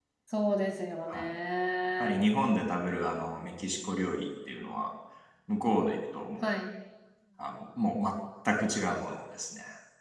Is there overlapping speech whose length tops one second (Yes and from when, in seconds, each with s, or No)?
No